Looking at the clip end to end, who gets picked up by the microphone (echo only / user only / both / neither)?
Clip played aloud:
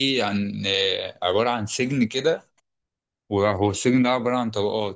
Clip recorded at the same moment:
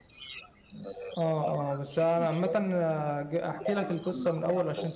both